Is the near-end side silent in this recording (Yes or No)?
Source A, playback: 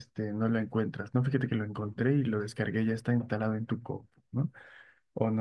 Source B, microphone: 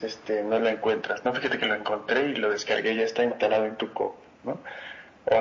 Yes